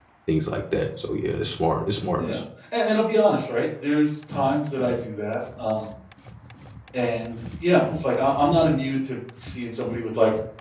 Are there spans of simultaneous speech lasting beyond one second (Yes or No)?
No